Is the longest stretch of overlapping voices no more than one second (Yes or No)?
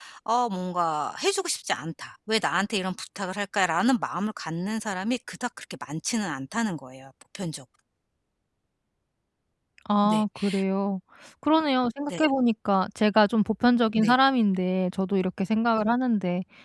Yes